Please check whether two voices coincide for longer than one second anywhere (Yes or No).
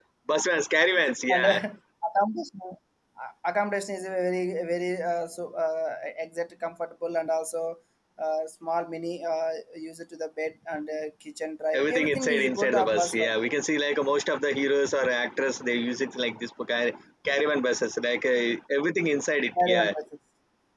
Yes